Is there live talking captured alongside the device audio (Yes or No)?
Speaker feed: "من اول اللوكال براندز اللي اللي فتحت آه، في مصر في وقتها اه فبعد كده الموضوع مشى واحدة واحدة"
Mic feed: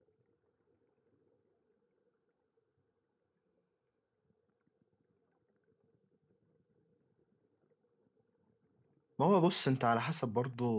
Yes